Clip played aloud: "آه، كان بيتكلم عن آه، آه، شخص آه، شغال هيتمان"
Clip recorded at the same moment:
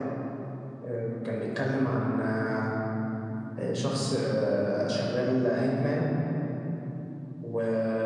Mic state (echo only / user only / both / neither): echo only